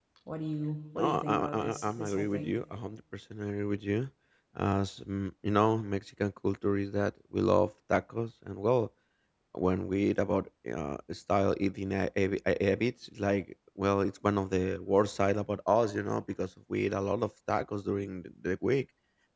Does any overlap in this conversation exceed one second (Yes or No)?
Yes